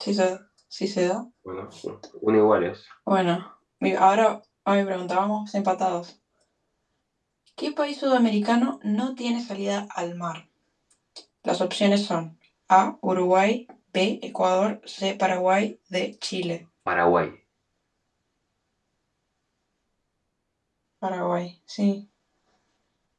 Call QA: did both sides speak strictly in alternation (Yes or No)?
Yes